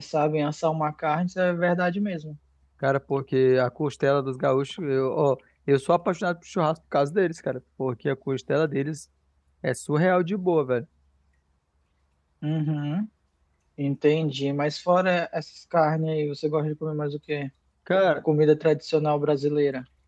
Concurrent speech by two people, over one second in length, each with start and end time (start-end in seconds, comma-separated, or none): none